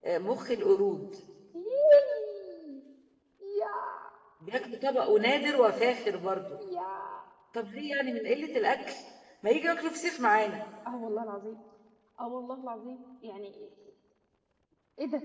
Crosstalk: none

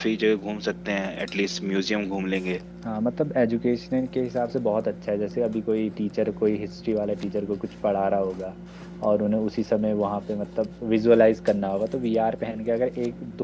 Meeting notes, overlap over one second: none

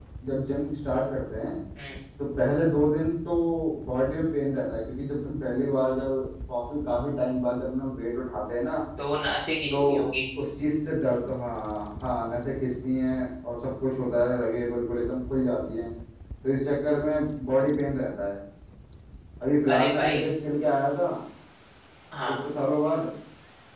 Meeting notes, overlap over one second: none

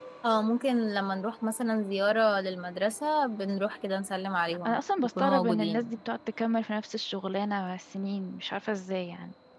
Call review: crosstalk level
present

